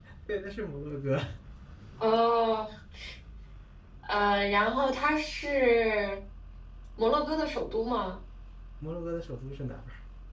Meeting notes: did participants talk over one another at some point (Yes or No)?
No